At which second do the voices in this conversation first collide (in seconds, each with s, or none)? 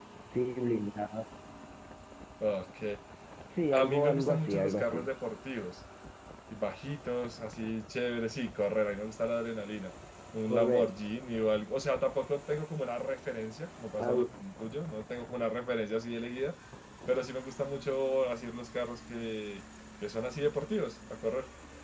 3.7 s